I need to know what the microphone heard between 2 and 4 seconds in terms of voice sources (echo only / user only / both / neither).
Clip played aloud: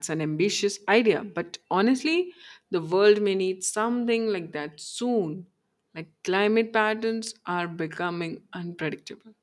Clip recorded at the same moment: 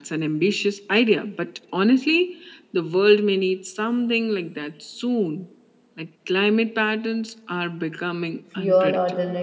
echo only